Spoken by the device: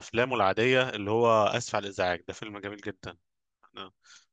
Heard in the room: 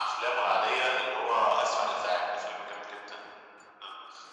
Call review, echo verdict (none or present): present